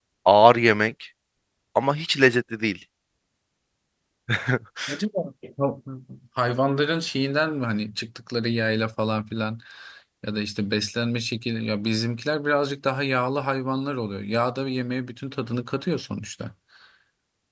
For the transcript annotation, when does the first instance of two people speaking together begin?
none

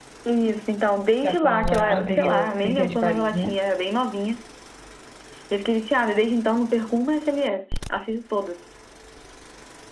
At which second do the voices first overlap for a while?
1 s

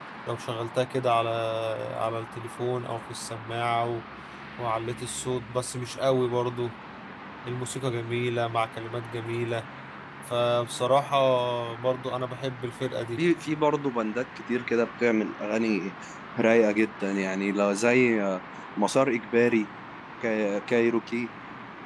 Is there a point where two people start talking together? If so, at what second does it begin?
none

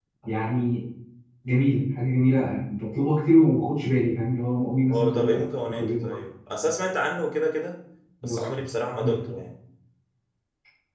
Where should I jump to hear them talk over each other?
5 s

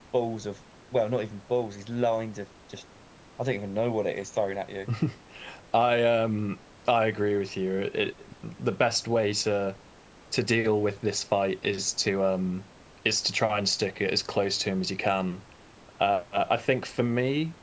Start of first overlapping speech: none

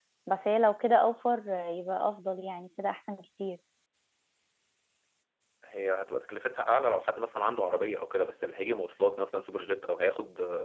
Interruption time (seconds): none

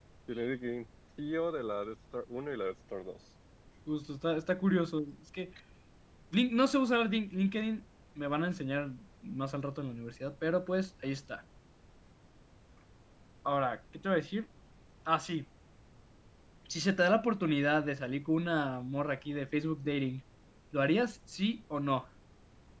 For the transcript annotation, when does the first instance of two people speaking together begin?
none

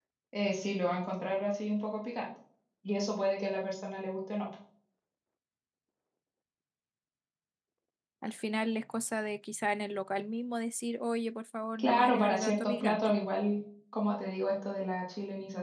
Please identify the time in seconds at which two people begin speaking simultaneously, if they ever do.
12 s

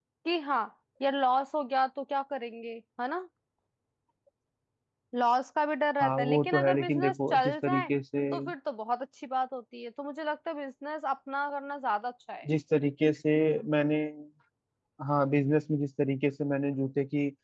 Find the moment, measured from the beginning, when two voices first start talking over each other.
6 s

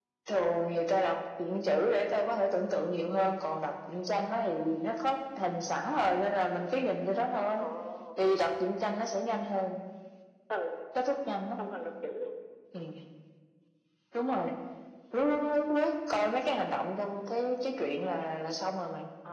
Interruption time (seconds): none

